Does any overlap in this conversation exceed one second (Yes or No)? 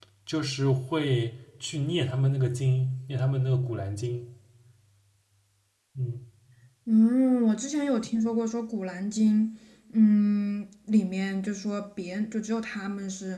No